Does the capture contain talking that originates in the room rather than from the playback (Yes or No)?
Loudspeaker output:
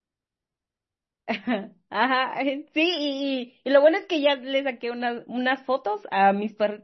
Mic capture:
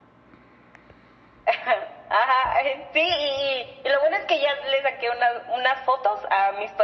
No